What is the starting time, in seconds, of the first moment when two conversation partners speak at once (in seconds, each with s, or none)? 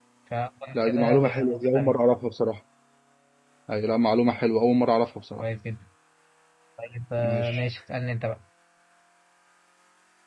0.7 s